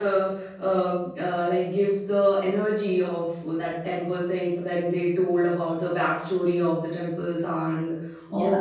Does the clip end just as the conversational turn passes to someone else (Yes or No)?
No